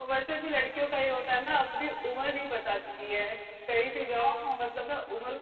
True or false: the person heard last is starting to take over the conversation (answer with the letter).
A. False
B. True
A